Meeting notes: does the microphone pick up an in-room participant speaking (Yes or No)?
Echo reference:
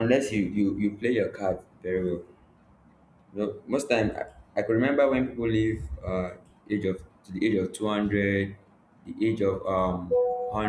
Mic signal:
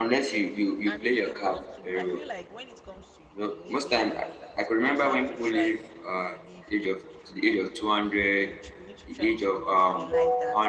Yes